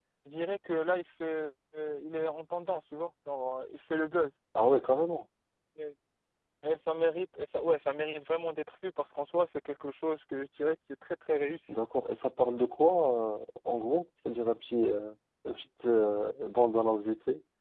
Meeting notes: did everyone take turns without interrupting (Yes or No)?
Yes